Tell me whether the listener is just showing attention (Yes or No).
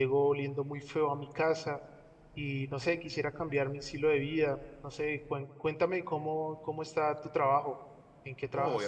No